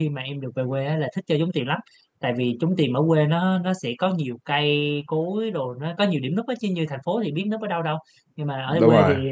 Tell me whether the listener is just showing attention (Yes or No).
Yes